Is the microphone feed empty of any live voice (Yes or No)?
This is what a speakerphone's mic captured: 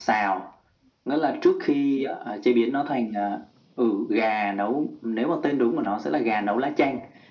Yes